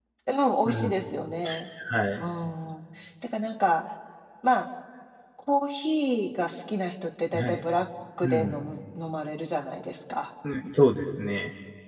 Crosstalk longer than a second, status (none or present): none